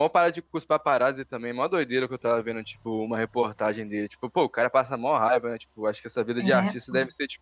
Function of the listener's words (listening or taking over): listening